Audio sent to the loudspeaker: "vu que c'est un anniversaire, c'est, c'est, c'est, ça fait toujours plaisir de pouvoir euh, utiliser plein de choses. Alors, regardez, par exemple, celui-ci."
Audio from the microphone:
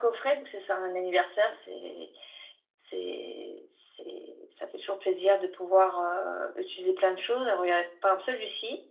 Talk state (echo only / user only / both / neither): echo only